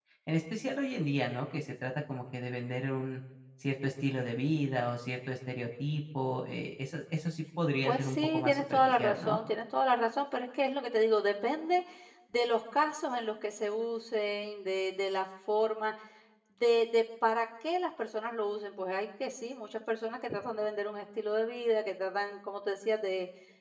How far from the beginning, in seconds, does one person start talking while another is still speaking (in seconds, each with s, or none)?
7.8 s